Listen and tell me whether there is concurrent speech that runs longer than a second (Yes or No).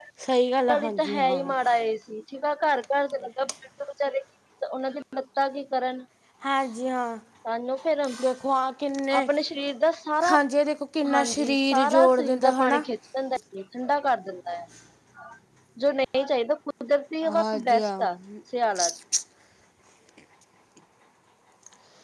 Yes